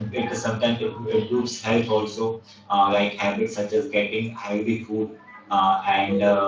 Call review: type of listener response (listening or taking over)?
listening